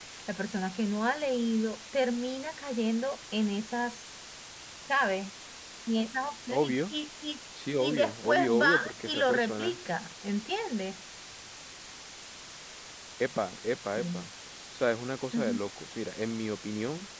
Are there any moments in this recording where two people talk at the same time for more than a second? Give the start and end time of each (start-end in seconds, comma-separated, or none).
7.8-9.8